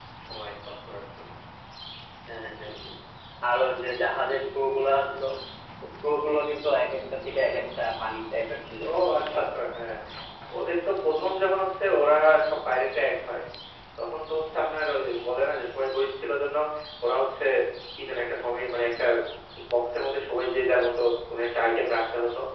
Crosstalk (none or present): none